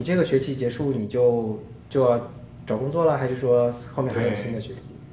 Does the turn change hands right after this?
Yes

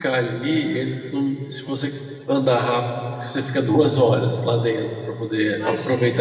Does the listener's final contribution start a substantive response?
No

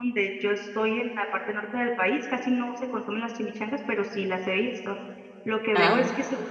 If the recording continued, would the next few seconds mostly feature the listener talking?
No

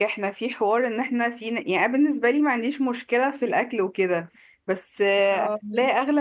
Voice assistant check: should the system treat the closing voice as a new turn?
No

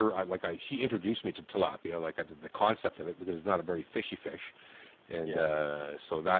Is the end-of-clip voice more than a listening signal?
No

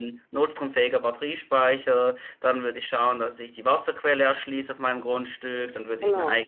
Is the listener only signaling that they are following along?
Yes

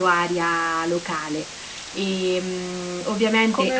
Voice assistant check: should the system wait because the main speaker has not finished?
No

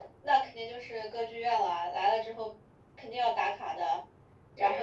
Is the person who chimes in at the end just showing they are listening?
No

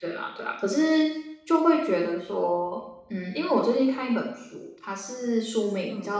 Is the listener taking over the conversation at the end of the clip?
No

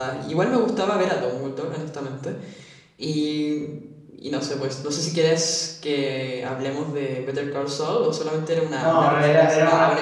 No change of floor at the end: No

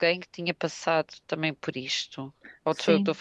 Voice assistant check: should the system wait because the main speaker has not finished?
No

